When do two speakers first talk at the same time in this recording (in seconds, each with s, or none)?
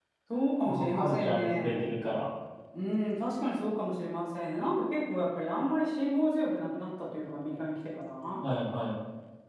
0.6 s